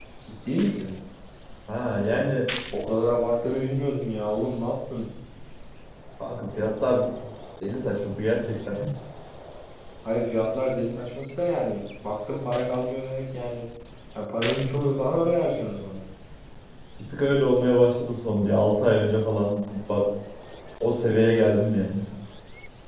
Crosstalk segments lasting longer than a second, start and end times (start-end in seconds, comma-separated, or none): none